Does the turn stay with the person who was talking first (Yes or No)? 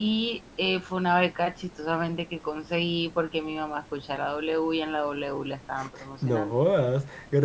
No